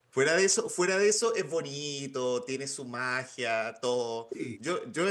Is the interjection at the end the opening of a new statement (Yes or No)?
No